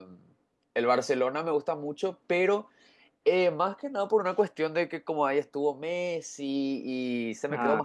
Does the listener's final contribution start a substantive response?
No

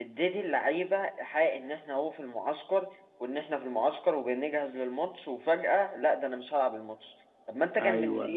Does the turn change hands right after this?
No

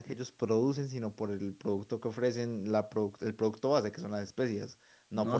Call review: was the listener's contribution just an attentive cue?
No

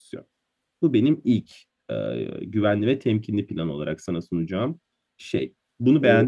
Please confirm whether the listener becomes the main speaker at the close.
Yes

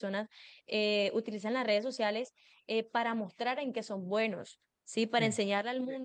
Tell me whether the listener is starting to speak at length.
No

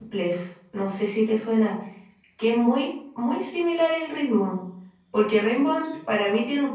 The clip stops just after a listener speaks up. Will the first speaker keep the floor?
Yes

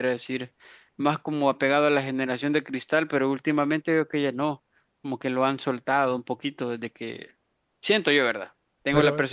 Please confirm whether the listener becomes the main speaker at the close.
No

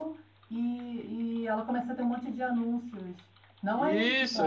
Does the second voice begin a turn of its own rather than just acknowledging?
Yes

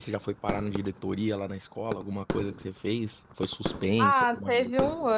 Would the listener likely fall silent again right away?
No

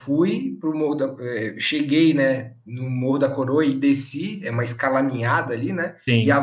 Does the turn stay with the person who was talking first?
Yes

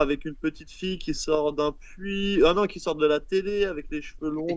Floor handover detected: Yes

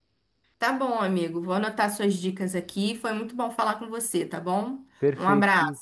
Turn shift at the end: Yes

